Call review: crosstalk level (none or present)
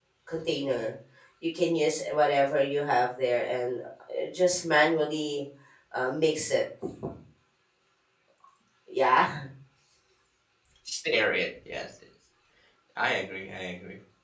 none